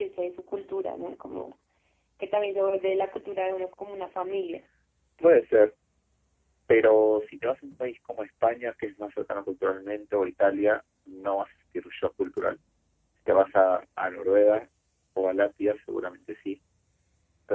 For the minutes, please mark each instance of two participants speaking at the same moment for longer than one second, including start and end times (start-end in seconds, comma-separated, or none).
none